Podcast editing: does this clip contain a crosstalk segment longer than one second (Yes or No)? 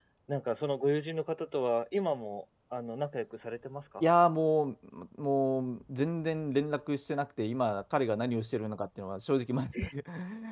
No